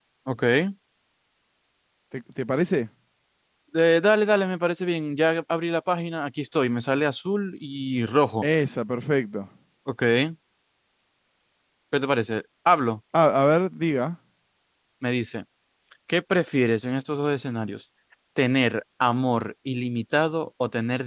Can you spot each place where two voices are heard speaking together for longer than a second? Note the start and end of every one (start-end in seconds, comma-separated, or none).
none